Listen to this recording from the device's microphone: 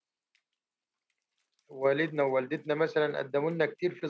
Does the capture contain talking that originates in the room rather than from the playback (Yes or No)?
Yes